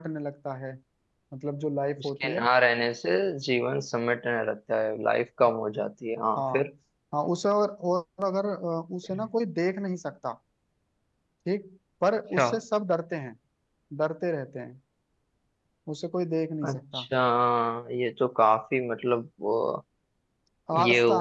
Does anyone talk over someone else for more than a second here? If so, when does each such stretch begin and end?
none

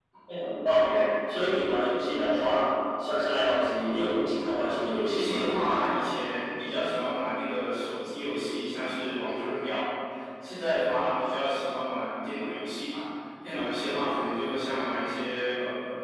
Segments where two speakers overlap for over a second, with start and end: none

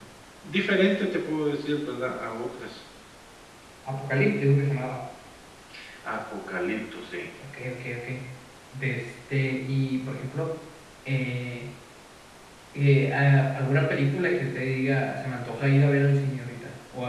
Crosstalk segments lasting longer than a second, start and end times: none

